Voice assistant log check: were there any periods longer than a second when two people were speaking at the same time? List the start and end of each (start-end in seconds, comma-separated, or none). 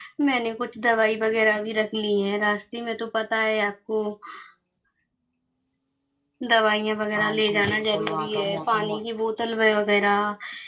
7.1-9.0